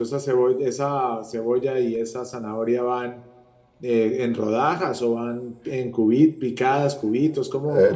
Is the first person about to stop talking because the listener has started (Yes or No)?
Yes